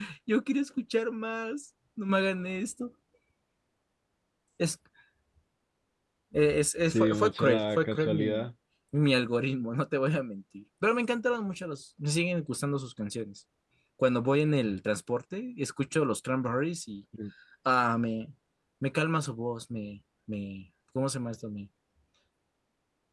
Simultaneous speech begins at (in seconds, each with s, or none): 6.9 s